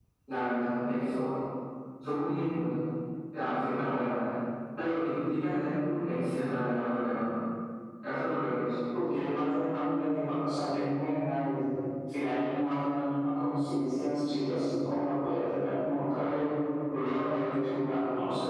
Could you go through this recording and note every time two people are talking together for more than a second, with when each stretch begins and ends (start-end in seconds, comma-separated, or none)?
none